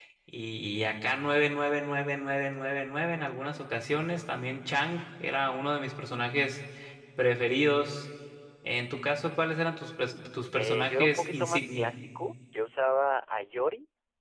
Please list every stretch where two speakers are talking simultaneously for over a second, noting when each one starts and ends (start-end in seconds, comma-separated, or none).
10.5-11.9